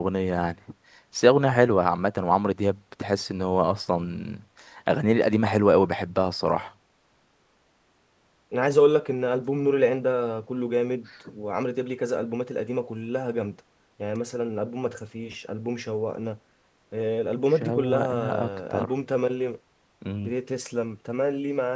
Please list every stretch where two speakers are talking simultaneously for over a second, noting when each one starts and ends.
17.5-18.9

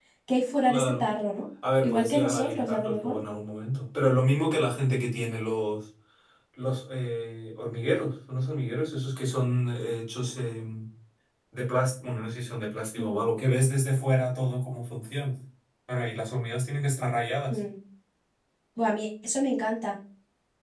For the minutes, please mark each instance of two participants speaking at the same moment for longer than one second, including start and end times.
1.8-3.2

